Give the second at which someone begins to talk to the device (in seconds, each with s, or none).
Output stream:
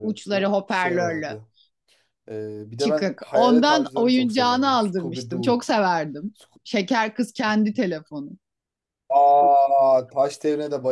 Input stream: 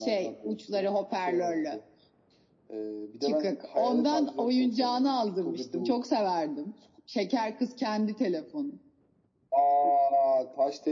none